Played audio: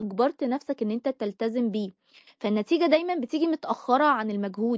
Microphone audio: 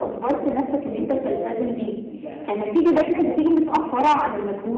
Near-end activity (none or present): present